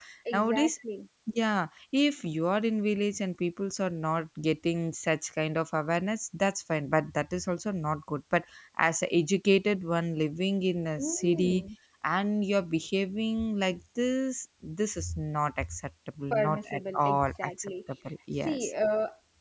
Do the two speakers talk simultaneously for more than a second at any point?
Yes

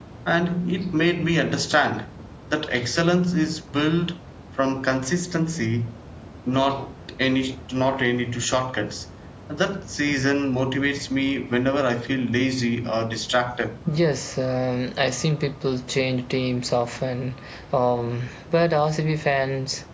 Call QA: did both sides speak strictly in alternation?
Yes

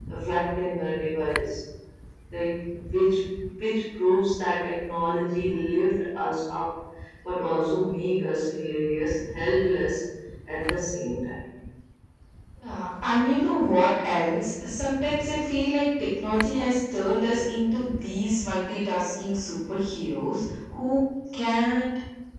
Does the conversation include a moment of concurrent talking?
No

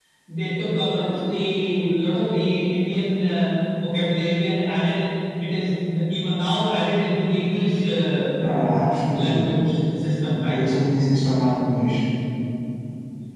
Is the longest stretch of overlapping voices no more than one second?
Yes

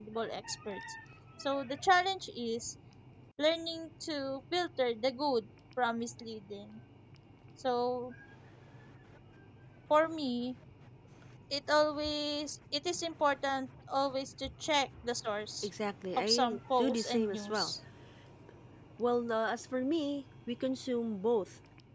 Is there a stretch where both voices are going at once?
Yes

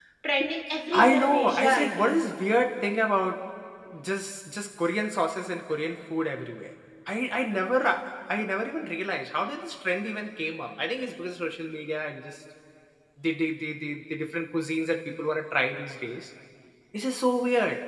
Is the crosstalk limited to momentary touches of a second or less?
No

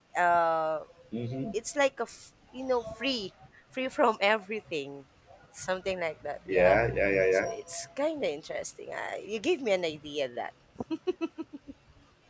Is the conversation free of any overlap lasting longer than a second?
Yes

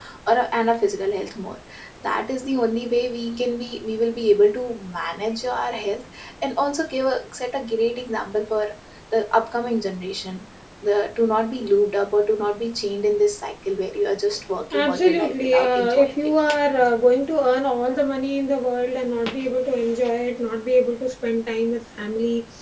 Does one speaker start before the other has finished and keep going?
Yes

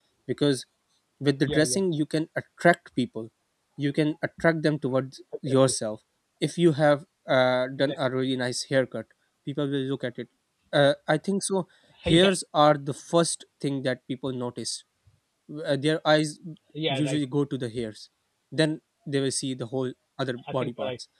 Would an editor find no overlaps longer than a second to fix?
Yes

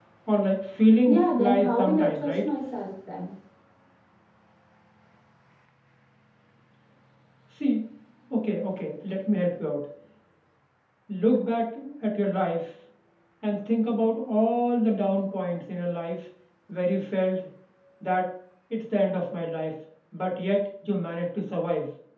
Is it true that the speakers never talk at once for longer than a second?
No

